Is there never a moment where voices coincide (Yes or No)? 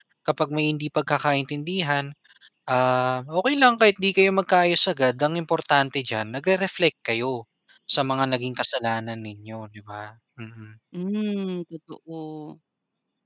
Yes